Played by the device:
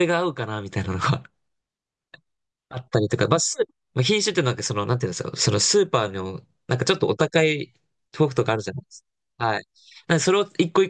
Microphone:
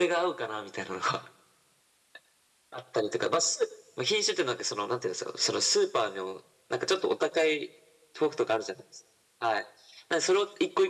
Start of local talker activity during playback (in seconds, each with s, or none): none